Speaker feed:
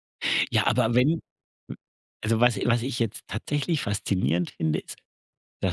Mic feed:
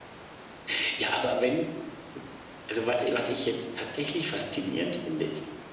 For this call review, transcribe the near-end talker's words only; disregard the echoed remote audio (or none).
none